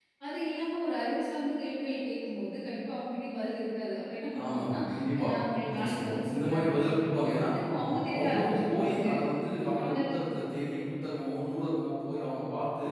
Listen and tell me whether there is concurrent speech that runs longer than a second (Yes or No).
Yes